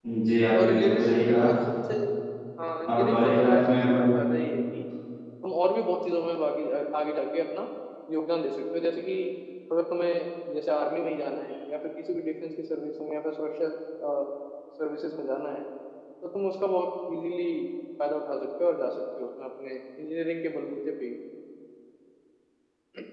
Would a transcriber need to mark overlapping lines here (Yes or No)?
Yes